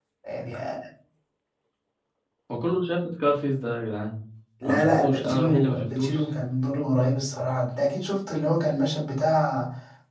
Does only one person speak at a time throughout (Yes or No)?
No